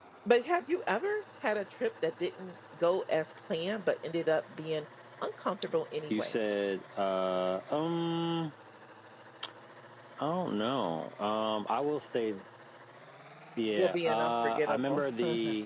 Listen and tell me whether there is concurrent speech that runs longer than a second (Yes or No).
Yes